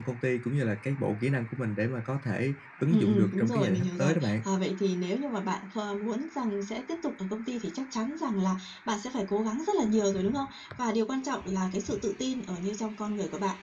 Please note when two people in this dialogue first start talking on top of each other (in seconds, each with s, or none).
2.9 s